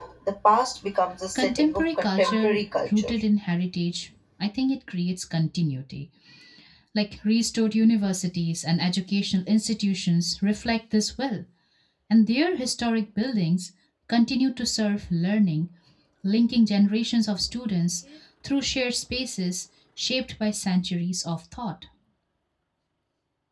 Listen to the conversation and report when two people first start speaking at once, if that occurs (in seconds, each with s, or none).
1.4 s